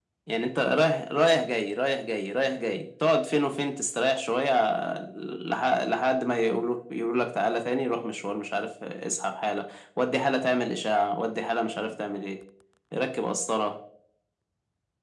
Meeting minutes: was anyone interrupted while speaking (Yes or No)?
No